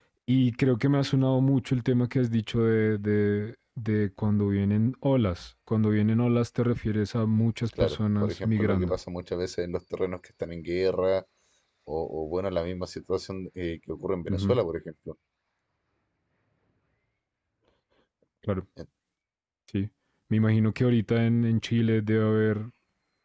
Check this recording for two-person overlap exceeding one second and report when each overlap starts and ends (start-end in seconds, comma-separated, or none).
7.8-9.0